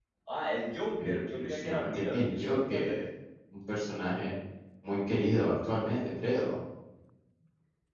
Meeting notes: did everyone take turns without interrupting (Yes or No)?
No